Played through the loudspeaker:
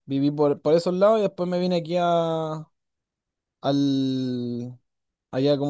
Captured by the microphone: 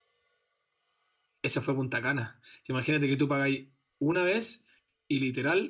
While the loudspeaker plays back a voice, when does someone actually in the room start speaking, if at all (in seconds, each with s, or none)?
1.4 s